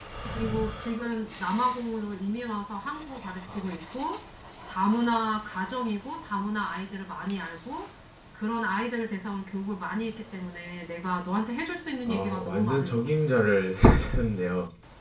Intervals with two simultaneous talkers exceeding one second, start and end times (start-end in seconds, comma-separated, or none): 12.1-13.3